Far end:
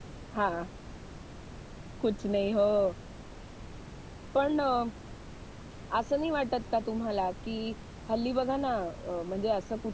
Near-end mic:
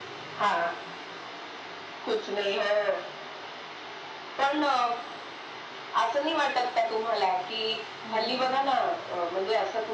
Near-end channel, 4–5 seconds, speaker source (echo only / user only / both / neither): echo only